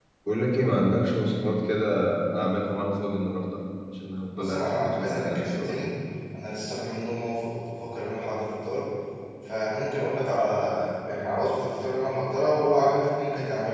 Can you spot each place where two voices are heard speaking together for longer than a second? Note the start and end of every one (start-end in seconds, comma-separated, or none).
4.3-5.8